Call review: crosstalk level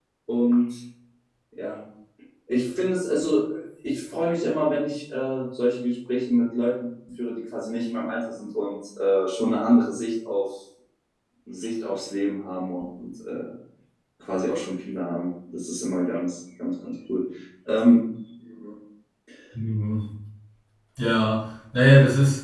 none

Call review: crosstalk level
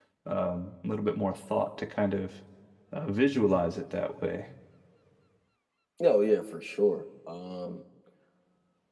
none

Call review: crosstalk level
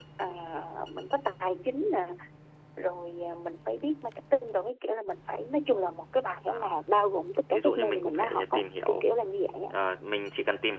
present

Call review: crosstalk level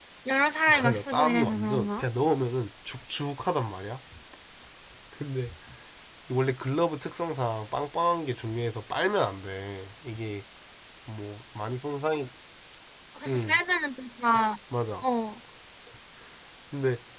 present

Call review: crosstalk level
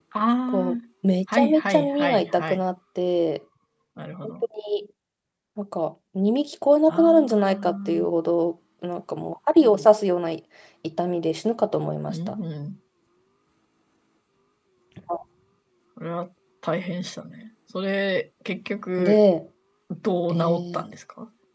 present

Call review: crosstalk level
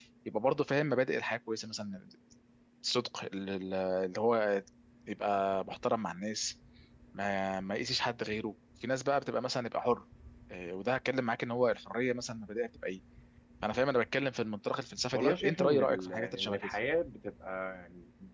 present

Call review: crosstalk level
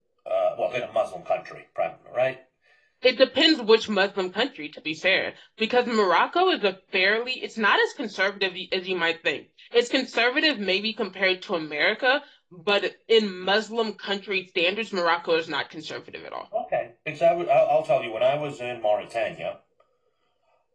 none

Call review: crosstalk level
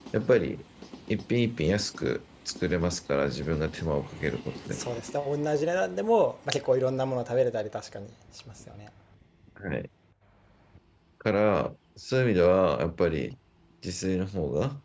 none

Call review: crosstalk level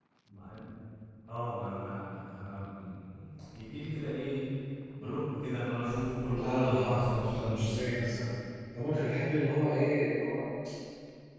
present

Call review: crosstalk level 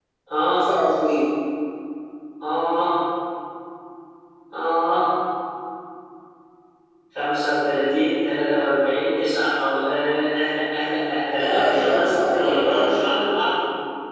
present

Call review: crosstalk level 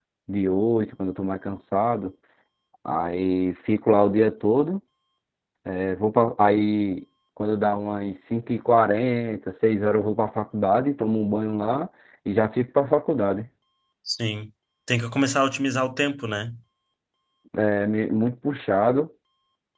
none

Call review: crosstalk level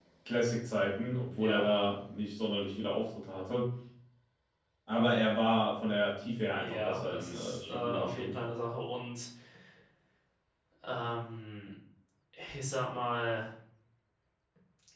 present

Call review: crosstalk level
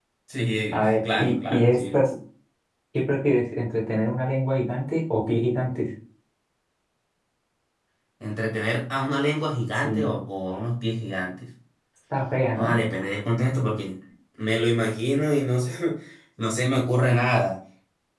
present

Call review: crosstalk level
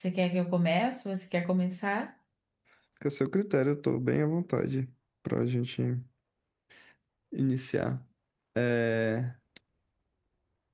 none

